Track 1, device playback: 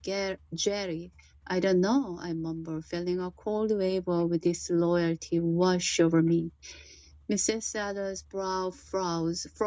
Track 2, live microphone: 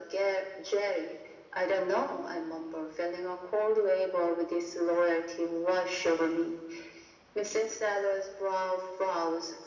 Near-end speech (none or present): none